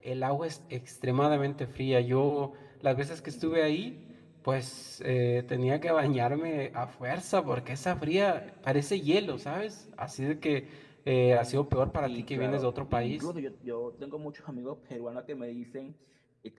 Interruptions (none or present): present